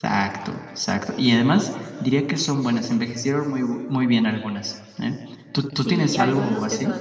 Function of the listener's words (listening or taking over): taking over